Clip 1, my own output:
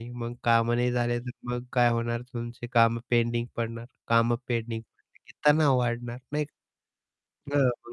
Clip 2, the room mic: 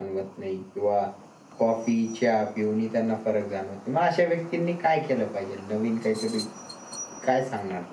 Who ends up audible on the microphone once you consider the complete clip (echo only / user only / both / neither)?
user only